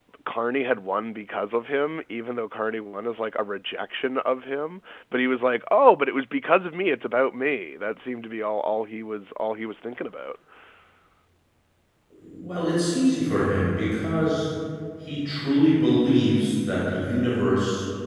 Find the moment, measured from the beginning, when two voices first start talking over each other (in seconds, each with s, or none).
none